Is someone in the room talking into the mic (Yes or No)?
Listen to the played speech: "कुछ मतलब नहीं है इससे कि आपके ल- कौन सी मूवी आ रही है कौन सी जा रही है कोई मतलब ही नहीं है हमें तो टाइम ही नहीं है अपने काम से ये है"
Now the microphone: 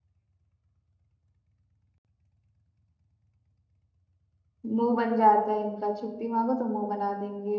Yes